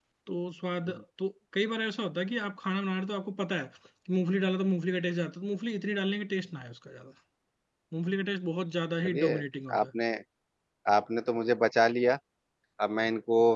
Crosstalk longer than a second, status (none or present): none